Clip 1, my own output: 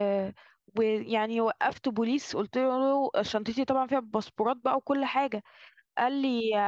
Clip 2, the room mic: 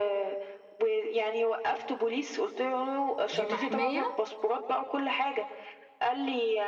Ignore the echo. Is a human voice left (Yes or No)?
Yes